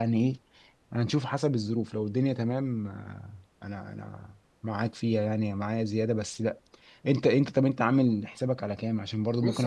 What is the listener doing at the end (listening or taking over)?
taking over